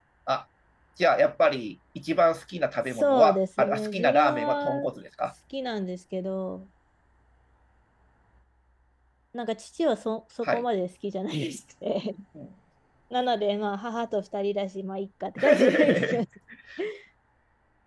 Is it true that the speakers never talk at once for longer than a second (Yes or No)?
No